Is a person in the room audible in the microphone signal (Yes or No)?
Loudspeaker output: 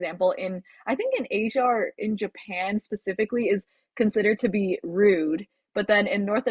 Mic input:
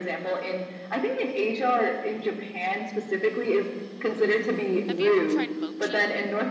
Yes